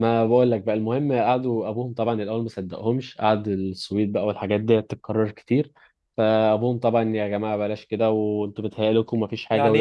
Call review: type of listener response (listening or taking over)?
taking over